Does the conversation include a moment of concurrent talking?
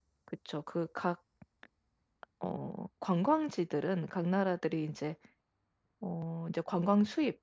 No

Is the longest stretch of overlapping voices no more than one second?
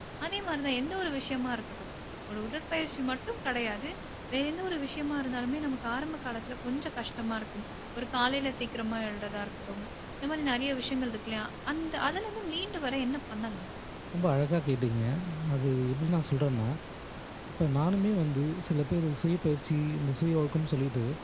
Yes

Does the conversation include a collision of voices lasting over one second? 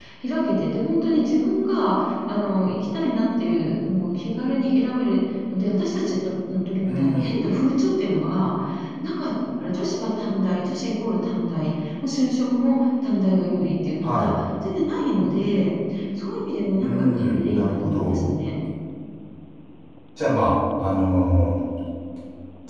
Yes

